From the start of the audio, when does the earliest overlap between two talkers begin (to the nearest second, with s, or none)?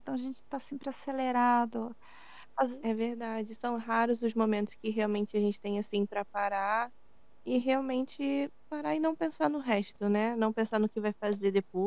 none